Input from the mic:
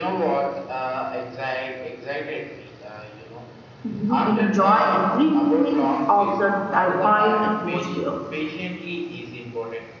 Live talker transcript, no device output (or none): you enjoy every moment of the divine atmosphere.